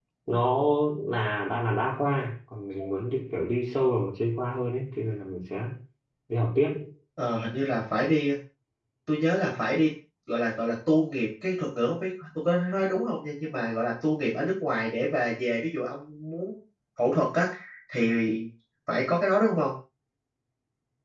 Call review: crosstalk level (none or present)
none